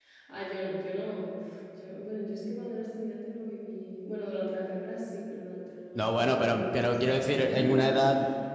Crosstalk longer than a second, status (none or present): present